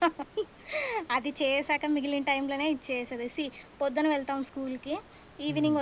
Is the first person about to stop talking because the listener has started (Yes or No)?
No